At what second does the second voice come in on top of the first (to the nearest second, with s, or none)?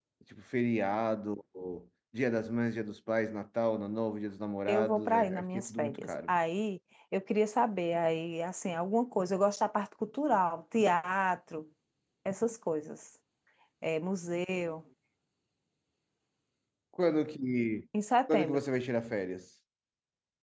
5 s